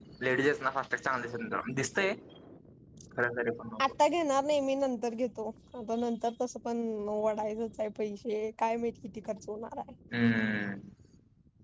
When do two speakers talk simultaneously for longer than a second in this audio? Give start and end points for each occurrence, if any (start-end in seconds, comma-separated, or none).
none